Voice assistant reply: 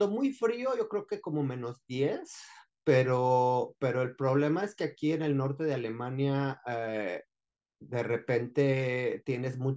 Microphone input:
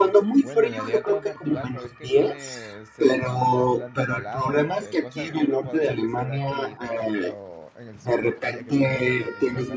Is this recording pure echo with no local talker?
No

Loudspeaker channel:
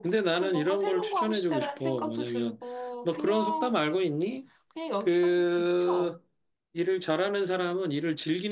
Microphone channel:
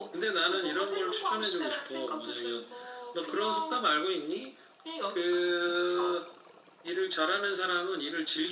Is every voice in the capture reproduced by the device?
Yes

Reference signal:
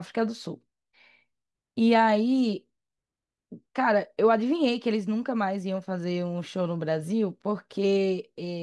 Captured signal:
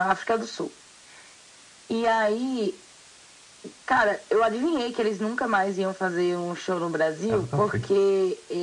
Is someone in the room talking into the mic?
Yes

